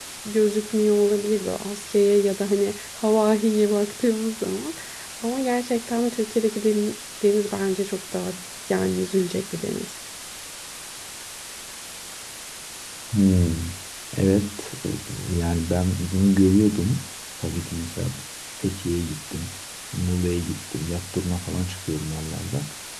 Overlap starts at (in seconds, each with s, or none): none